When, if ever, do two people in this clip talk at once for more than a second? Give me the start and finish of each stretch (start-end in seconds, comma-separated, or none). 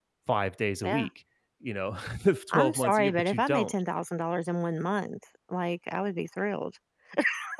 2.5-3.7